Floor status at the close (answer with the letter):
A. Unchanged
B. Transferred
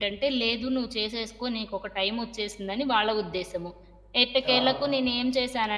A